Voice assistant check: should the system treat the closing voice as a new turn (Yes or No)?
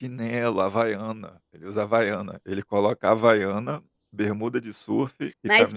Yes